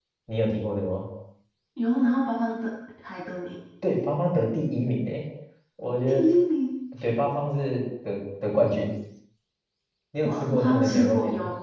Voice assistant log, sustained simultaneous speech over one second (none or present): present